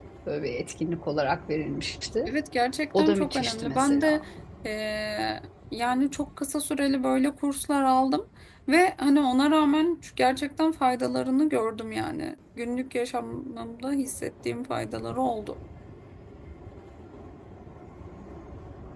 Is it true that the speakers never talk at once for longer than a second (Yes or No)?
No